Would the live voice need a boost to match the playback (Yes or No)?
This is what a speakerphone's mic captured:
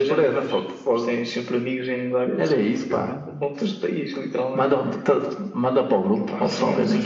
Yes